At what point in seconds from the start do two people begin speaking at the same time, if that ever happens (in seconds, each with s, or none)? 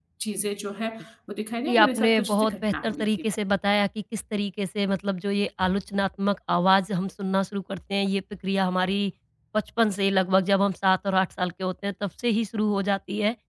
1.7 s